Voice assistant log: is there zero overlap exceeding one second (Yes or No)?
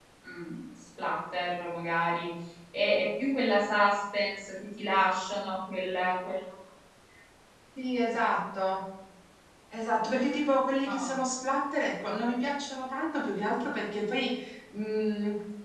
Yes